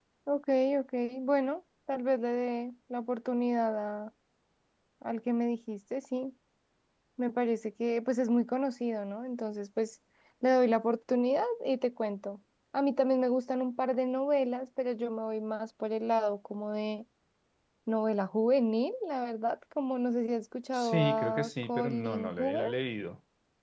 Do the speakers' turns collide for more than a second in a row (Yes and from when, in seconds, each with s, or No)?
Yes, from 20.7 s